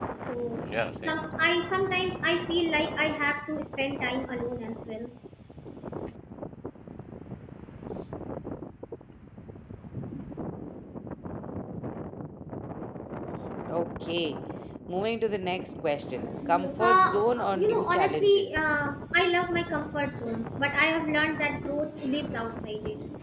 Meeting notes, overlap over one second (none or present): present